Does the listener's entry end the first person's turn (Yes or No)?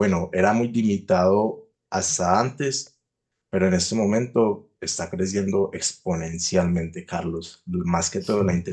No